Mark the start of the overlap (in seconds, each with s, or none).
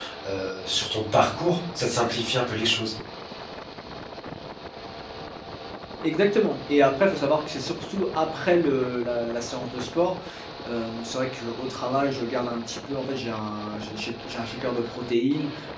none